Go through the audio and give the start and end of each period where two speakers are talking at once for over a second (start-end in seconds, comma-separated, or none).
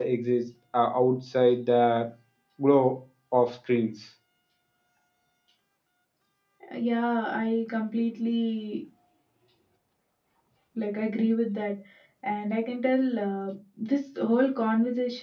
none